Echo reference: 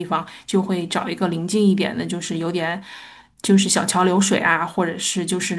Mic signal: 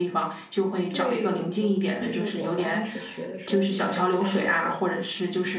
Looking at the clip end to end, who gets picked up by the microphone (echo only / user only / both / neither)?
both